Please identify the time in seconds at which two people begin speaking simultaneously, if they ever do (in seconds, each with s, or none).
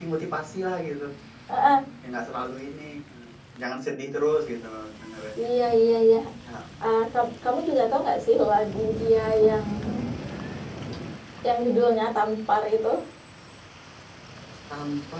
none